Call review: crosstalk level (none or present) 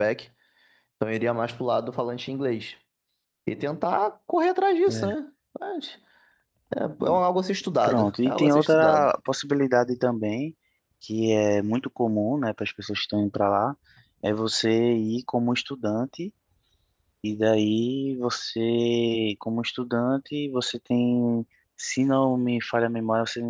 present